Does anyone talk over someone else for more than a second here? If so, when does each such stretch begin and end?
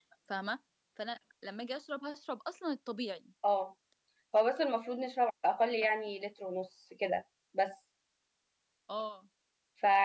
none

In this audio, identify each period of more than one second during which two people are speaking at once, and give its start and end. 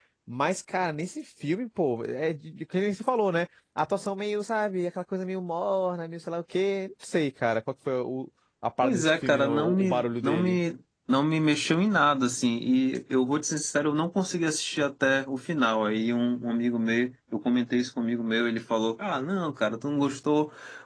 8.8-10.6

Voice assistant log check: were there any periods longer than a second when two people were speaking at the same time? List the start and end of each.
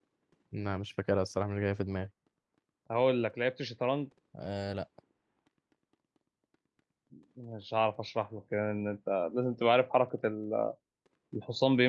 none

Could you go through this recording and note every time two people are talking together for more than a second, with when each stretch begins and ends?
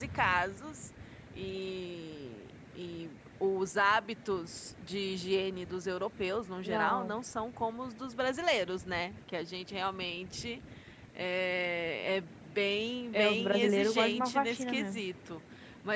13.1-15.0

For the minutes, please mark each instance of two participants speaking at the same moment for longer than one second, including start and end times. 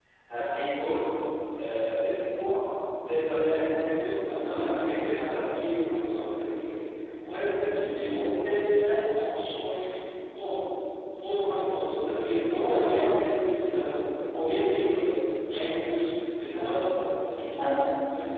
3.9-5.4

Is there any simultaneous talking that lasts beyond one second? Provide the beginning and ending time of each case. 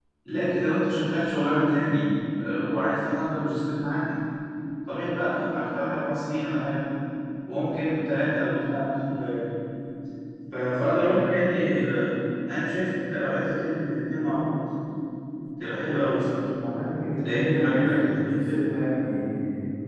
17.2-18.5

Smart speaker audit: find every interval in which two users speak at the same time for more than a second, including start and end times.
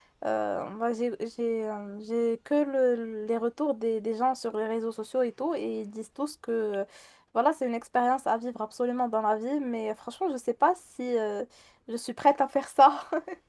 none

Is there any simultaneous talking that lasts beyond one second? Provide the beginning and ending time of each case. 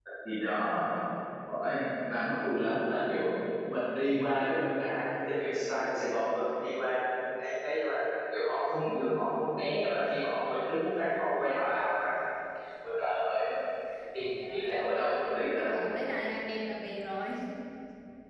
14.2-15.8

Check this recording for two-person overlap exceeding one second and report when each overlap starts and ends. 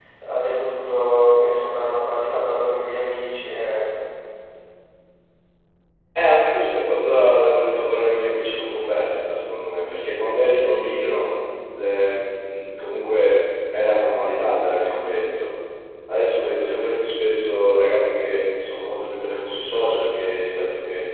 none

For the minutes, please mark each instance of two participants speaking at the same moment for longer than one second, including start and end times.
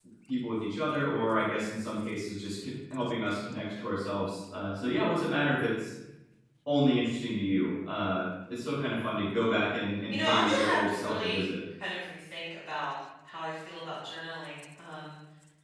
10.1-11.4

